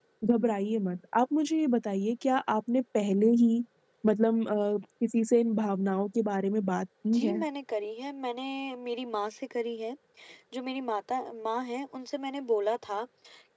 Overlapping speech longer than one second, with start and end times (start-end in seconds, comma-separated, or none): none